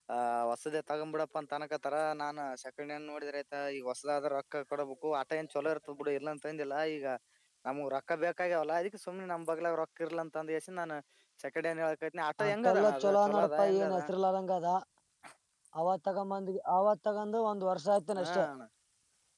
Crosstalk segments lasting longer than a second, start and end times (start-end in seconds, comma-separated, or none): 12.5-14.0